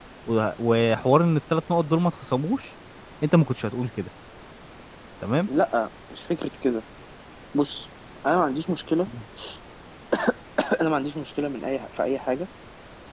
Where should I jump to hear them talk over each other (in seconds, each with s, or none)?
none